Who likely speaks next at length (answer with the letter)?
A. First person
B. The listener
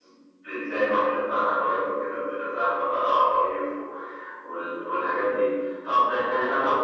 A